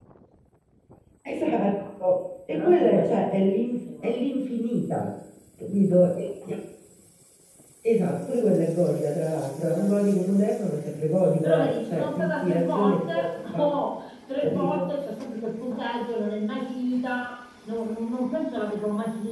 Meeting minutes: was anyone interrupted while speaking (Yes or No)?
Yes